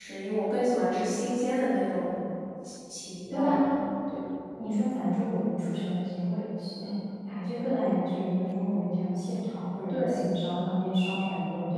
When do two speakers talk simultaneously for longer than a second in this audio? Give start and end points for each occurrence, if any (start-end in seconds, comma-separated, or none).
none